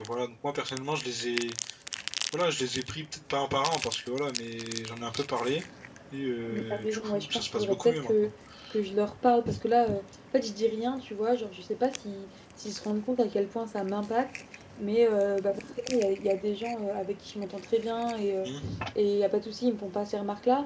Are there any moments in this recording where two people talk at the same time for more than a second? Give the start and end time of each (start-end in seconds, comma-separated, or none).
6.5-8.3